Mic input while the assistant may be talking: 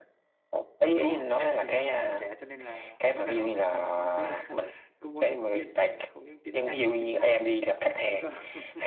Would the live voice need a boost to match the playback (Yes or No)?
Yes